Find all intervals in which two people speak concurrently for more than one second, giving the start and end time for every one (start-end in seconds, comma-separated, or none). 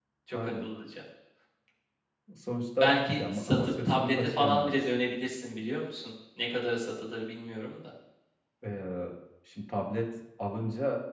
2.8-4.9